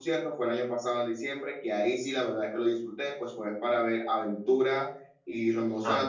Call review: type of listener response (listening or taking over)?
listening